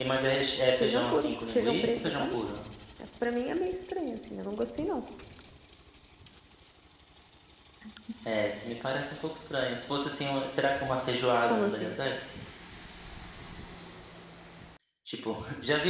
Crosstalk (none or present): present